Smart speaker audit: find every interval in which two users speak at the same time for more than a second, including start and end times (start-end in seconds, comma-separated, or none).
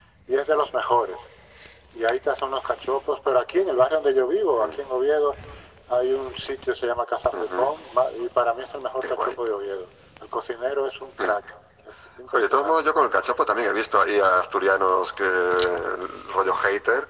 none